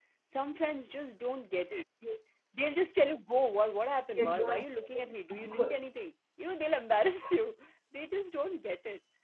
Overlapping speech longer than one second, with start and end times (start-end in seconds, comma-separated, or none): 4.2-5.7